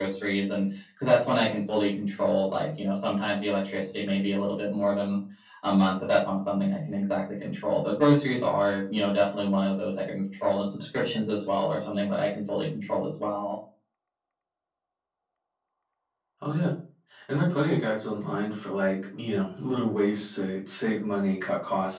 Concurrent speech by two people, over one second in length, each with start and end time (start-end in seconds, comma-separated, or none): none